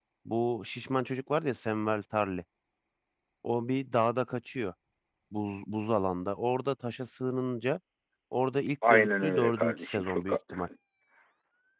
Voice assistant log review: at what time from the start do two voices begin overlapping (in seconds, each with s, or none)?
8.9 s